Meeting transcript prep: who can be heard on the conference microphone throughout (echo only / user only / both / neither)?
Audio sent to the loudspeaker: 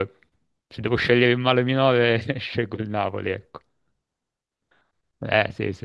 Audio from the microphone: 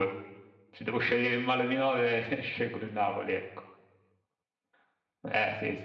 echo only